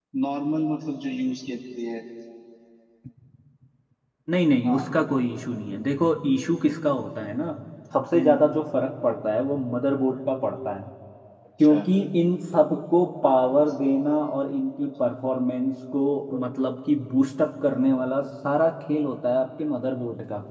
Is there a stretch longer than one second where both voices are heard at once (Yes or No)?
No